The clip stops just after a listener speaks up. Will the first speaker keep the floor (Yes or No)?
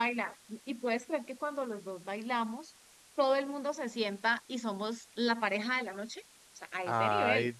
No